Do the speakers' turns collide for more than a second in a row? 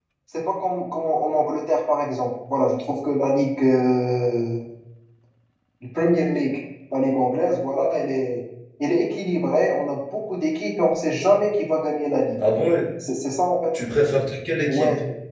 No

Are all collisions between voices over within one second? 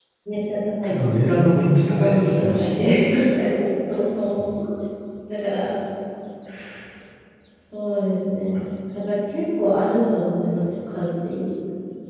No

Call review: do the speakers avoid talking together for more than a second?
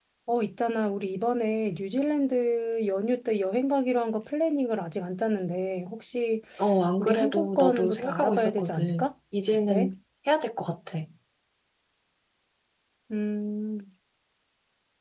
No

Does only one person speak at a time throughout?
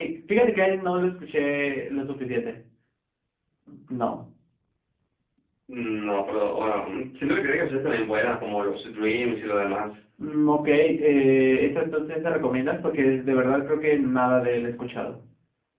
Yes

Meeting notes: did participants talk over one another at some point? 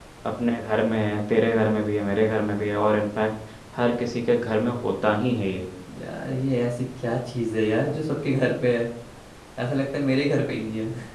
No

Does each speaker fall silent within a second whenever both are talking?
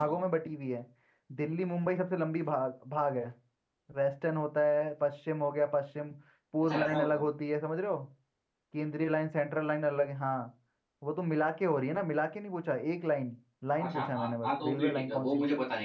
No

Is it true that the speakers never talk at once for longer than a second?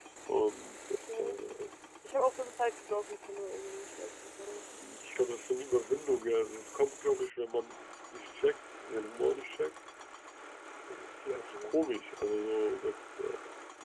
Yes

